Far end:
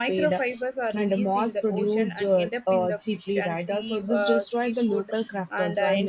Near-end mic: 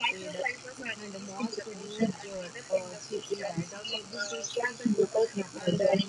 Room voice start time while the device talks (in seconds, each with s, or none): none